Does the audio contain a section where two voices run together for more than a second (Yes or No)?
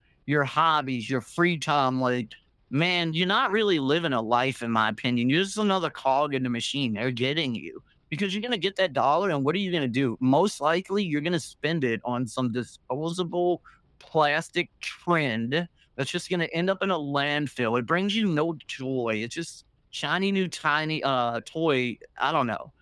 No